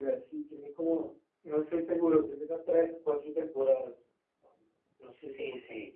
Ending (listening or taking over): taking over